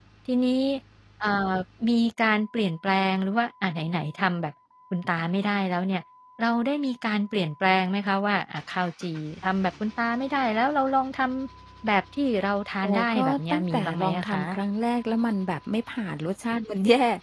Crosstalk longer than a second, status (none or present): present